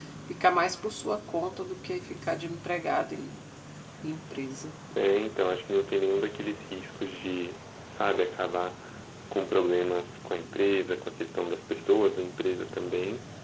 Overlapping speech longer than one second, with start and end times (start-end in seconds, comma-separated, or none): none